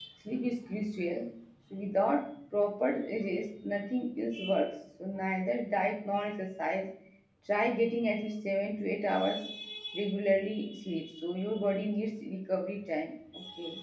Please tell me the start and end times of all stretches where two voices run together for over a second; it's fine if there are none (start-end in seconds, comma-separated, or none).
none